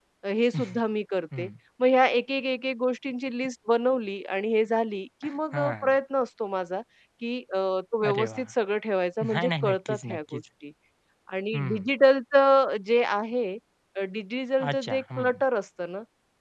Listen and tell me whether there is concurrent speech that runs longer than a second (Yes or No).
Yes